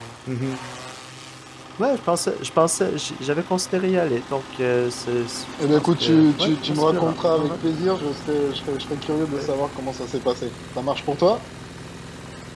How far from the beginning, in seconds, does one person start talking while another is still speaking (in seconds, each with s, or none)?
5.7 s